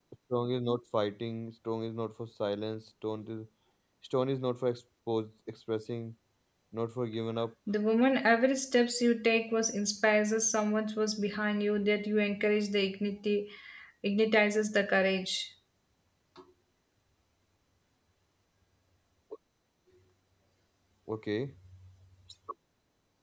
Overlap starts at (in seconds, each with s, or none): none